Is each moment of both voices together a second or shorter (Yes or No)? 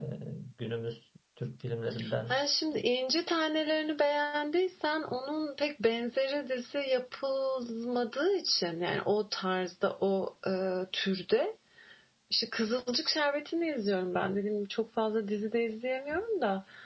Yes